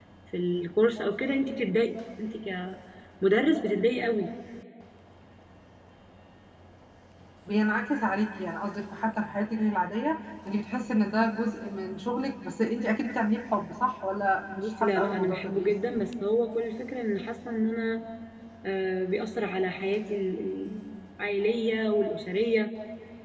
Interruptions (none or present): present